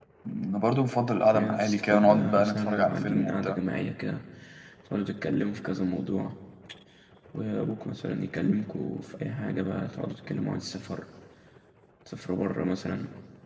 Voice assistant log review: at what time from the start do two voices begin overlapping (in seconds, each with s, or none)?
1.3 s